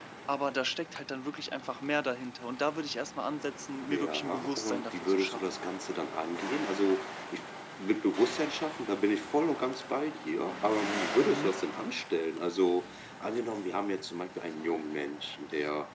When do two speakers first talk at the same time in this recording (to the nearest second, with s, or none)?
4 s